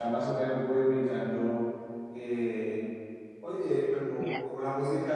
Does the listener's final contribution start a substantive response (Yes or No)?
No